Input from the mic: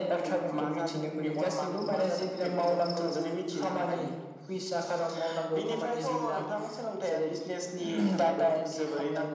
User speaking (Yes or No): No